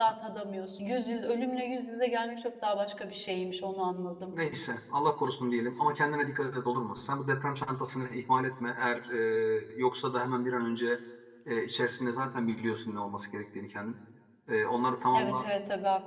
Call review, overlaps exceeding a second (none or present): none